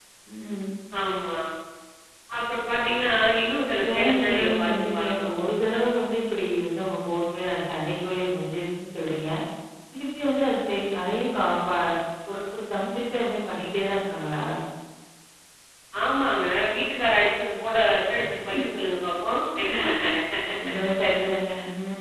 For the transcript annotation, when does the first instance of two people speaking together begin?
3.7 s

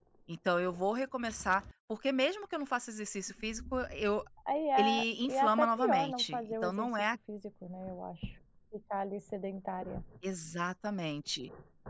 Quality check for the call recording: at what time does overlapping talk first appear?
4.8 s

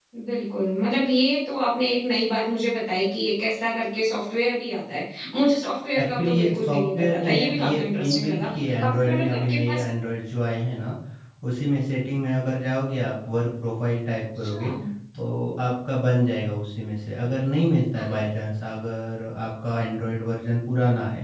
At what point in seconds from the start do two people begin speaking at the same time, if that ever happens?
6.0 s

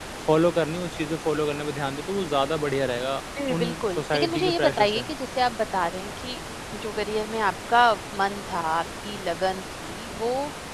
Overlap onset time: 3.6 s

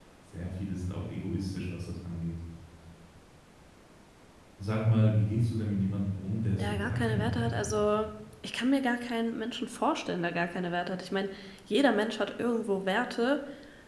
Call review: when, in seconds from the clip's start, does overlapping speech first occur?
6.5 s

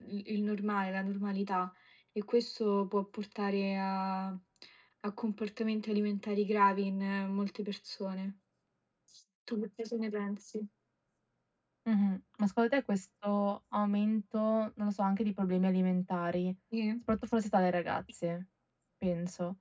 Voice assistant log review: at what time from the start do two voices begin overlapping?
none

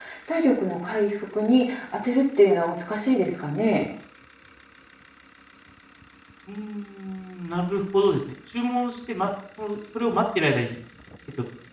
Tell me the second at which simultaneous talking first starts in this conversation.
none

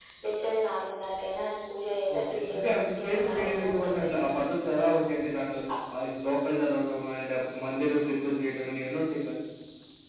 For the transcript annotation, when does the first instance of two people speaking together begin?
2.1 s

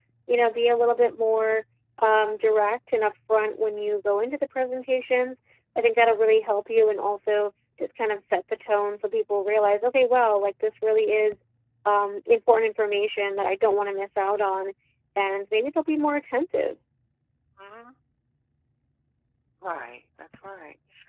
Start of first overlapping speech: none

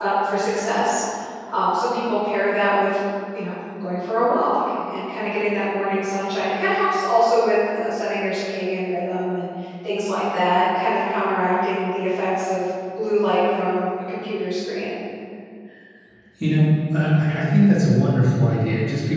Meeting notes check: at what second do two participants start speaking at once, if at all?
none

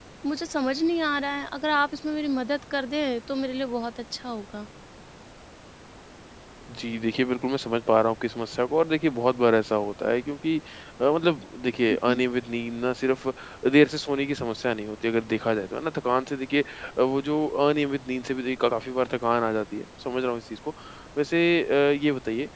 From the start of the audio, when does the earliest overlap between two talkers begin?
none

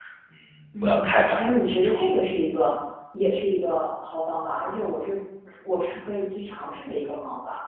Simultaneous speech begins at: 0.8 s

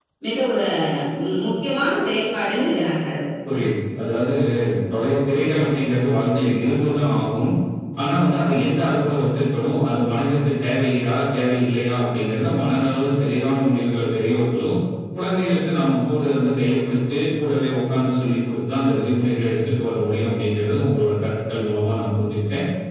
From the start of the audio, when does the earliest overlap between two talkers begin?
none

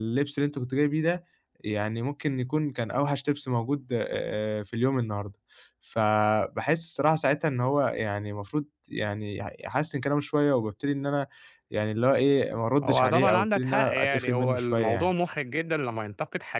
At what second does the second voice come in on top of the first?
12.8 s

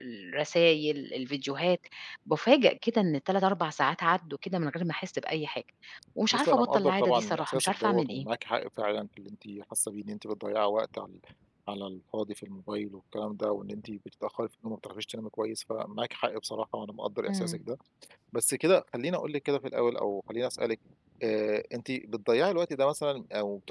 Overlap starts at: 6.3 s

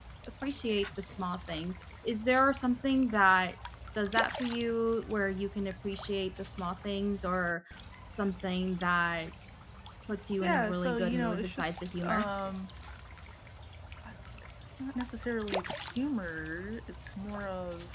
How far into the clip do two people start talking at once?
10.4 s

